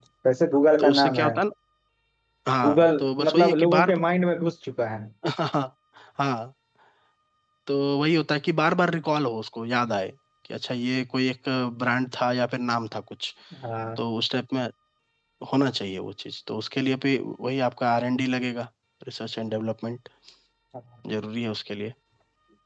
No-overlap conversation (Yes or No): No